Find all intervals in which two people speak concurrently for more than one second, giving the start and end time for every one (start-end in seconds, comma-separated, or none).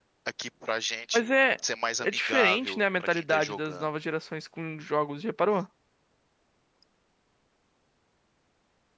2.0-3.9